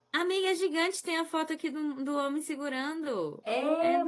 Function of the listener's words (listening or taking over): taking over